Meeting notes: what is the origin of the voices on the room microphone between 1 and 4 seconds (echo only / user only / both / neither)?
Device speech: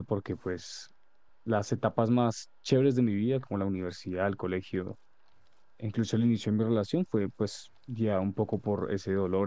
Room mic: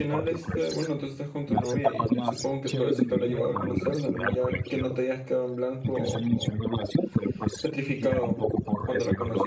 both